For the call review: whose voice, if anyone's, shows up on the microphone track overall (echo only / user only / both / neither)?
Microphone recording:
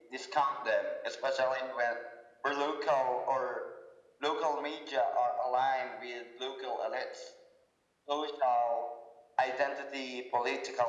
echo only